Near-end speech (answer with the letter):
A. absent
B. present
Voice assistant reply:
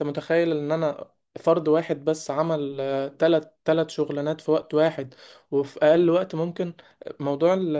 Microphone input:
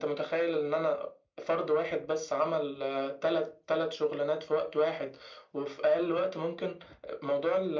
A